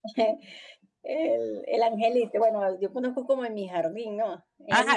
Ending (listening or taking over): taking over